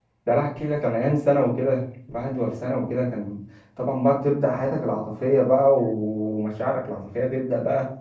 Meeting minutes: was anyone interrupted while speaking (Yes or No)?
No